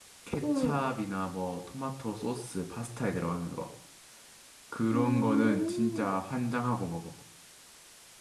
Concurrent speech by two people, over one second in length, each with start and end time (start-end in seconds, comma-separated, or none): 4.9-6.1